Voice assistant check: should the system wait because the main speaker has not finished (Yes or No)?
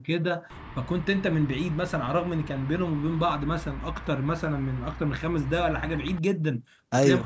Yes